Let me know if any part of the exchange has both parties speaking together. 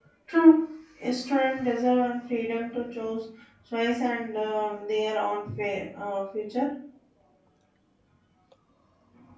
No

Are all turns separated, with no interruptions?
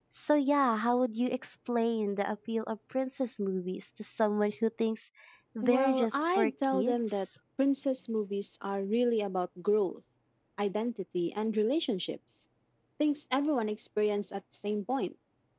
No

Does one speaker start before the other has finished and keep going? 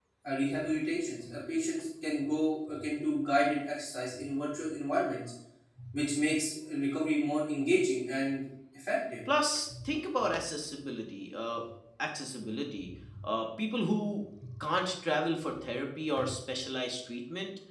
No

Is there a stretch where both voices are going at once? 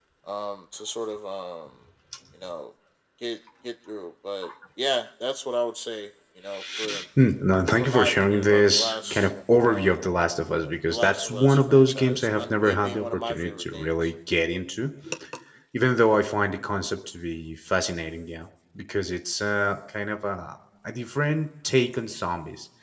Yes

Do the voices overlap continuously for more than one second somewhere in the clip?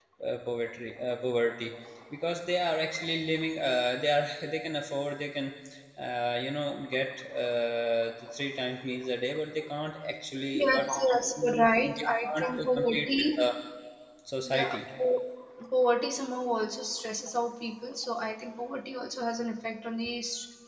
Yes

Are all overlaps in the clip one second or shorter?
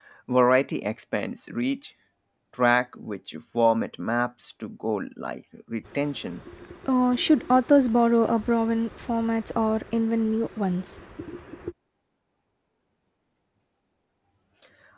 Yes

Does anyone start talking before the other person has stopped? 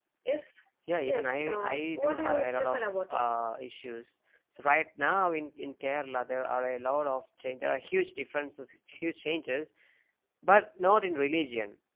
Yes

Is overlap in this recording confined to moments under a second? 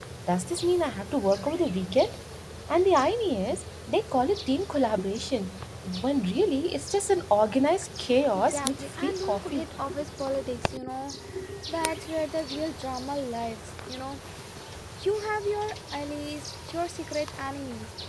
No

